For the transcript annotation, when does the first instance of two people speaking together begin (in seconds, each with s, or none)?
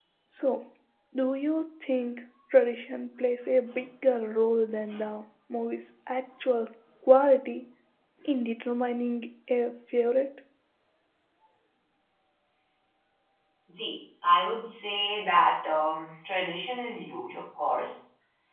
none